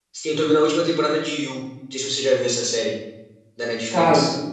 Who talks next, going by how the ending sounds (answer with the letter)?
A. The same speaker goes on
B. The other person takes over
B